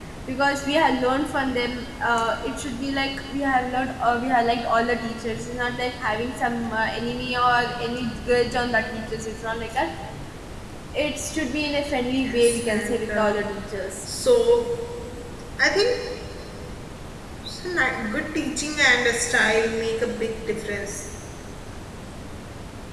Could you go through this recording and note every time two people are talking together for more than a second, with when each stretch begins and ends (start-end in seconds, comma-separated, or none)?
12.2-13.4